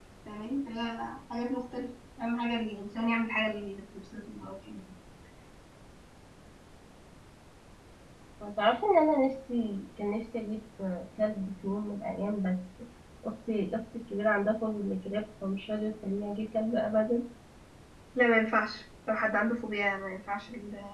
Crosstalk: none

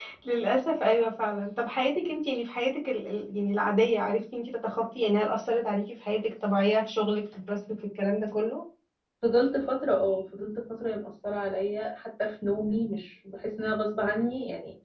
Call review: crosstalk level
none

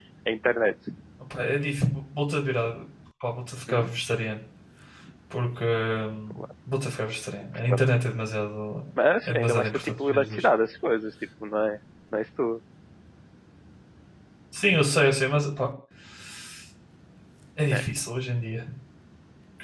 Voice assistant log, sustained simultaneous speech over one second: present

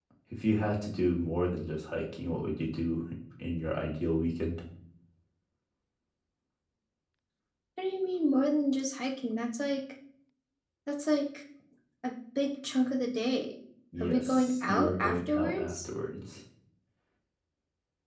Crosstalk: present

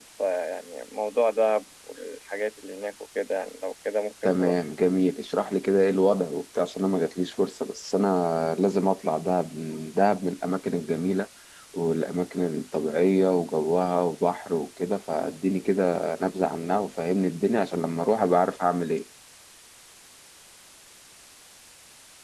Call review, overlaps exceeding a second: none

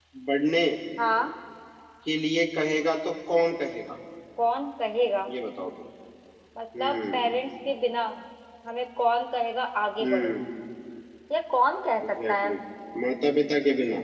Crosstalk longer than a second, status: none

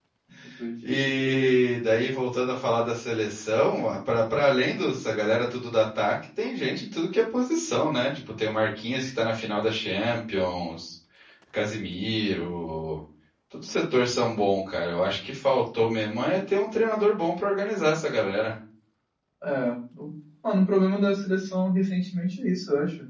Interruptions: none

